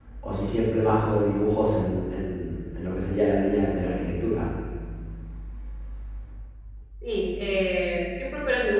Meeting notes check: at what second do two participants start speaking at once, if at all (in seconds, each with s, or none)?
none